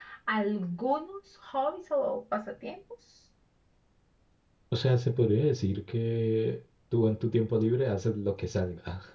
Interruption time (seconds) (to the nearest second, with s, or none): none